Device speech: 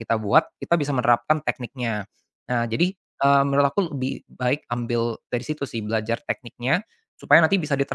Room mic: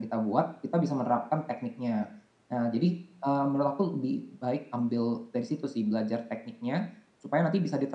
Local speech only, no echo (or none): none